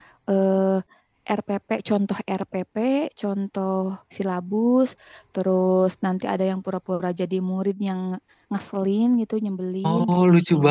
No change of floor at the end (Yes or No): No